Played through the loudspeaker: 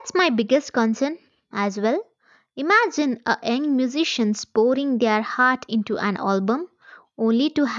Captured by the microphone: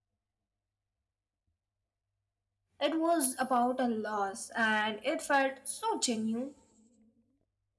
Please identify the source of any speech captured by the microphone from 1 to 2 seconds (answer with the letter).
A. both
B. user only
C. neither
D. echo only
C